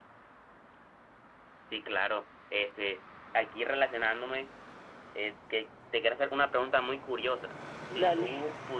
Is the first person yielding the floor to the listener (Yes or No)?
No